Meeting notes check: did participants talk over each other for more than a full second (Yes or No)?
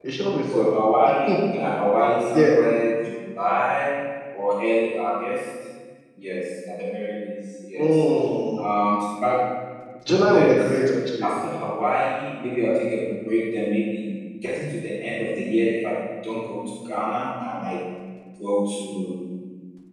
No